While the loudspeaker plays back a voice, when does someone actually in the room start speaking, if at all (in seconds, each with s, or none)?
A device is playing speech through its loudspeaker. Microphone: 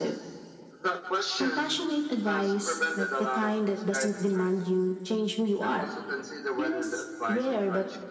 none